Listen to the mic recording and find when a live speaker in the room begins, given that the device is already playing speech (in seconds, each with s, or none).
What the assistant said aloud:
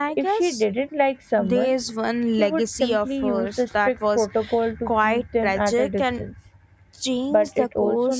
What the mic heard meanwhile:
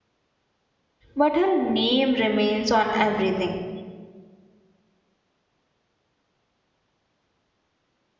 1.1 s